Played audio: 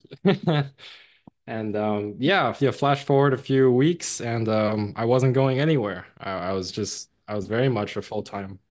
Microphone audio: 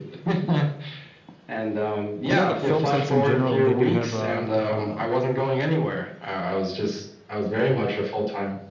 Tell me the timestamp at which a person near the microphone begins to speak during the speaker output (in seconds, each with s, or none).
2.3 s